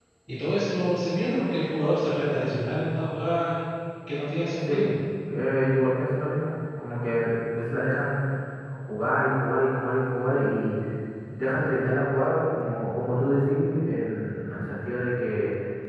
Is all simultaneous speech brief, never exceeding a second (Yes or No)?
Yes